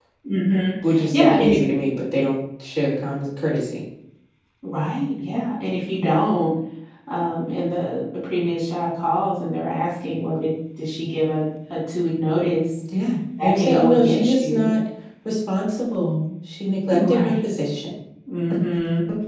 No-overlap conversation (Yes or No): No